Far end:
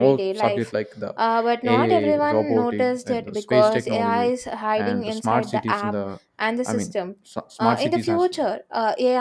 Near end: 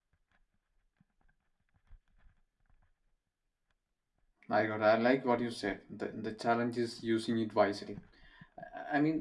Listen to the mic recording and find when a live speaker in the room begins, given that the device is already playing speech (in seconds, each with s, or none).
4.5 s